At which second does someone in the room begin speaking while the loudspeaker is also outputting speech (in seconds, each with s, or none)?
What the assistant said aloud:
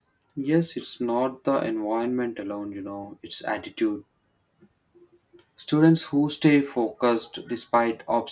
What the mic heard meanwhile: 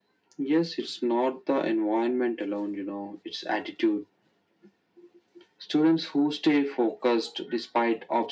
none